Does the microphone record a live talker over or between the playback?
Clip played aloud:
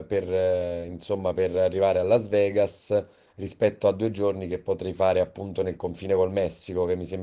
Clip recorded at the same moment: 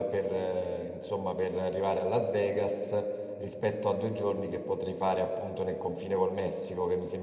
No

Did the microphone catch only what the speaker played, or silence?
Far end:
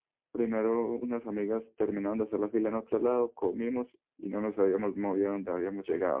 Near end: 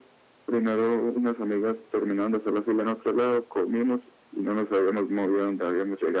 Yes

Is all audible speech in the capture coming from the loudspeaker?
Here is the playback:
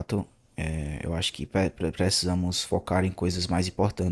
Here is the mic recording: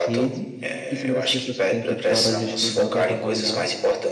No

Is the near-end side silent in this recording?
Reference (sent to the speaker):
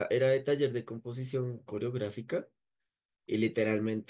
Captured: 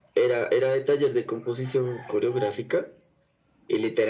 Yes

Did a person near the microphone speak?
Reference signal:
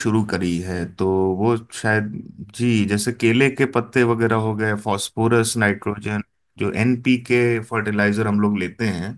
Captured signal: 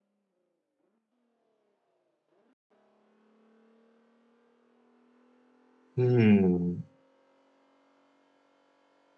Yes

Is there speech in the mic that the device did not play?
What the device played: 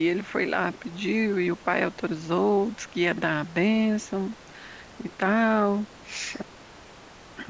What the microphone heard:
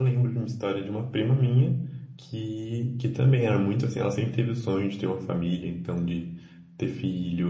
Yes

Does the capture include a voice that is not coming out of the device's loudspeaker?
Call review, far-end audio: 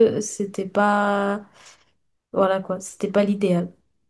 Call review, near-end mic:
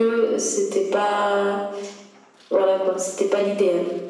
No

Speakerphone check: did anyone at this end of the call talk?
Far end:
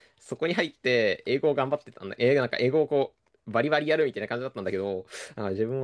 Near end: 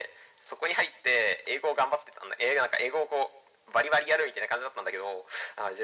No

